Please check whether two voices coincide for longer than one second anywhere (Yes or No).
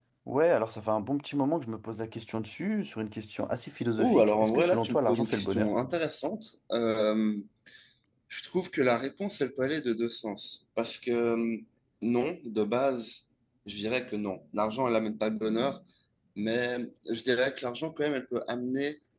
Yes